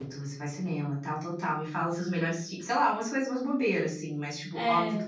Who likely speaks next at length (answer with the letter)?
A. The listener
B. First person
B